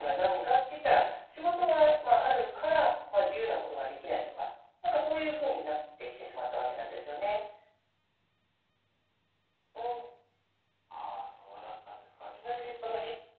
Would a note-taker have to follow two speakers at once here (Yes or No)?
No